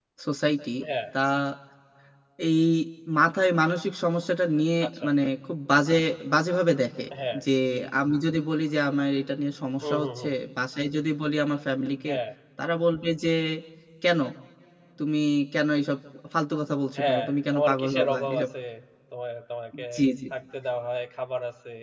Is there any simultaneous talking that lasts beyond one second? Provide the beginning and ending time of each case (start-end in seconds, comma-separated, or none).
17.0-18.5